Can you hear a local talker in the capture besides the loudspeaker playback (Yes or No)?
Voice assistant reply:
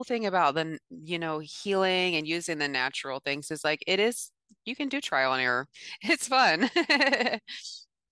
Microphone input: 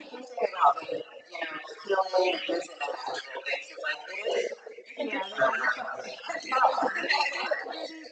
Yes